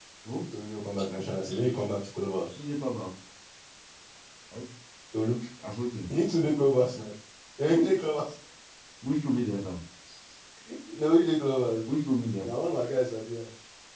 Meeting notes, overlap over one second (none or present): none